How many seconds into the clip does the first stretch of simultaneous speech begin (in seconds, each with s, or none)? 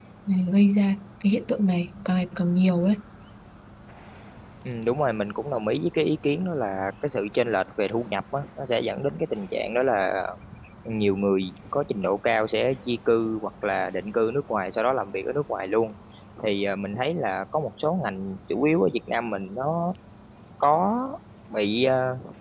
none